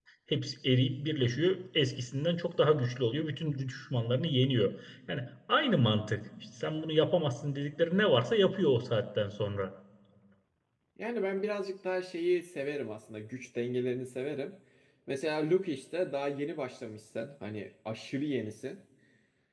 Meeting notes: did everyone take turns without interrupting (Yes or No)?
Yes